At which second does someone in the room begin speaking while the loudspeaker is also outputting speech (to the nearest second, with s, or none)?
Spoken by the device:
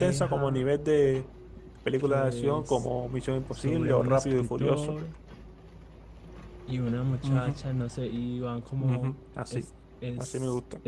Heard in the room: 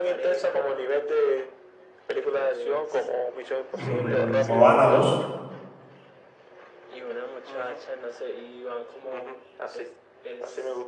4 s